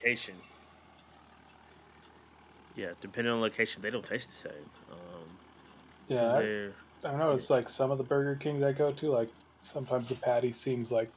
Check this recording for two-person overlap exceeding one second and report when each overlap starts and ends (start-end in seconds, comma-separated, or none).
none